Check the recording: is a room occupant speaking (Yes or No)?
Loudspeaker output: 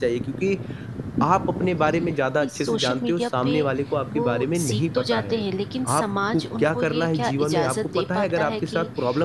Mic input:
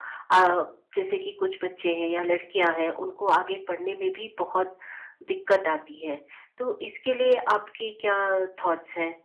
Yes